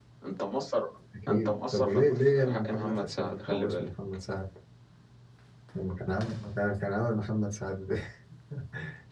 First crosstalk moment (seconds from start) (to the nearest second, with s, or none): 1 s